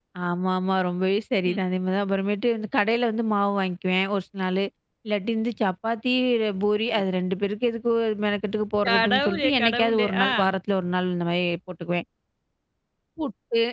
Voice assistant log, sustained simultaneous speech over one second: present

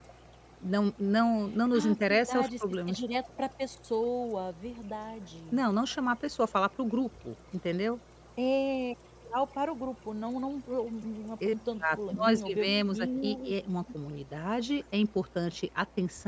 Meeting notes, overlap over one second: present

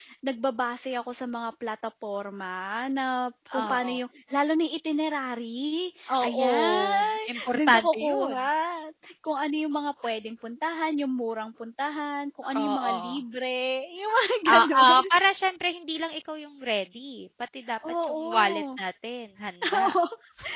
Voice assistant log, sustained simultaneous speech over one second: present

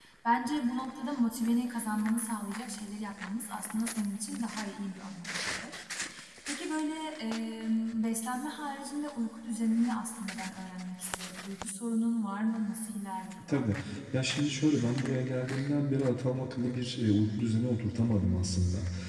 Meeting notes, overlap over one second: none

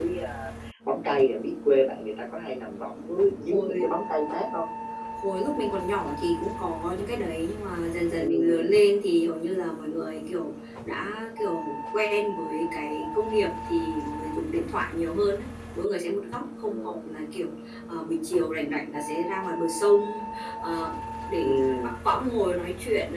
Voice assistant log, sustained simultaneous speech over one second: none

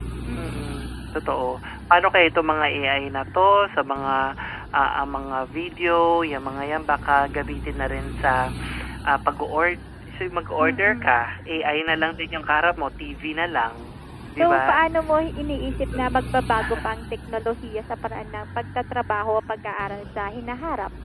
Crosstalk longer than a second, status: none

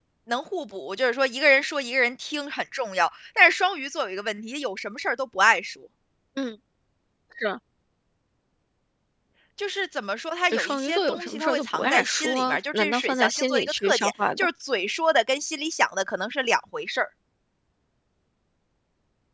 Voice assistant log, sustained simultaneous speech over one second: present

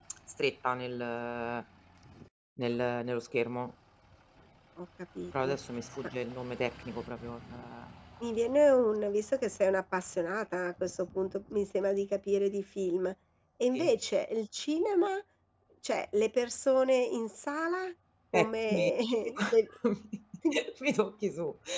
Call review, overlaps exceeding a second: none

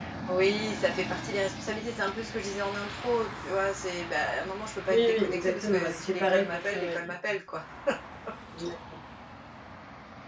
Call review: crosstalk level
present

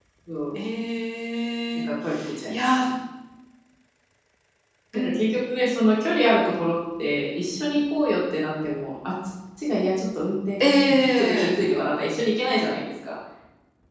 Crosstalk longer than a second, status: none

